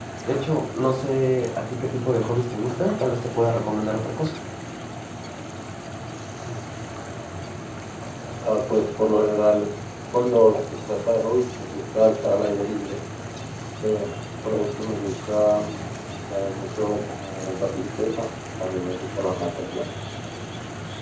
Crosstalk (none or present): none